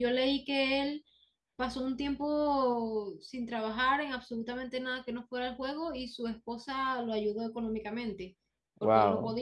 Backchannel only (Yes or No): Yes